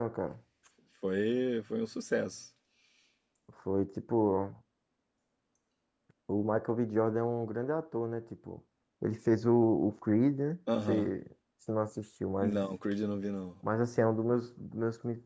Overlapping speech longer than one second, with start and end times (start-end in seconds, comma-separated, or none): none